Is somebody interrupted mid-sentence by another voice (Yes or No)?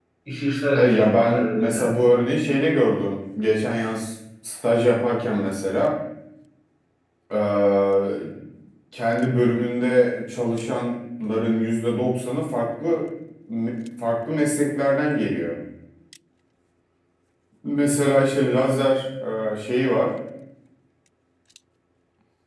Yes